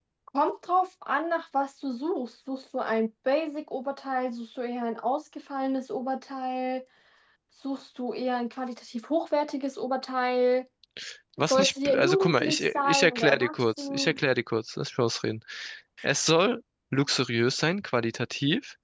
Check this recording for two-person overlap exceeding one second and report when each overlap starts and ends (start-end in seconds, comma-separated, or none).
11.4-14.2